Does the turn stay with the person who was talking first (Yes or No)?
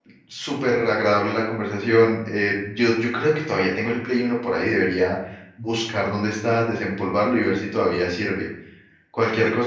Yes